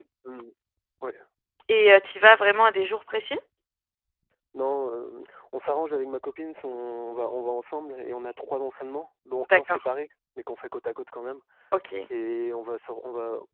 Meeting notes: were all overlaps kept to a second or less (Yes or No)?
Yes